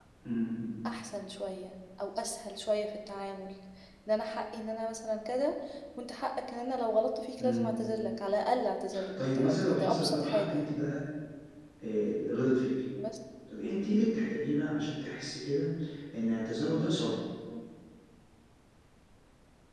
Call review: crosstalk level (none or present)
present